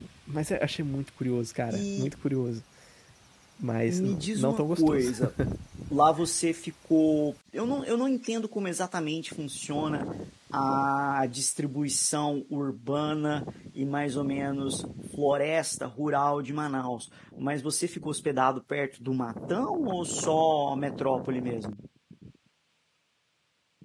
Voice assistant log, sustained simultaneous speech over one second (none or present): present